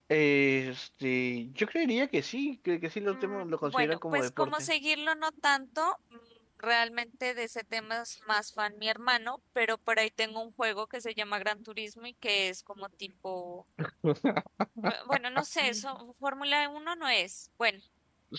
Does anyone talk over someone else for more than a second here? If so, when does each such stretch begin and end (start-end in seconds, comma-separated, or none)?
3.1-4.7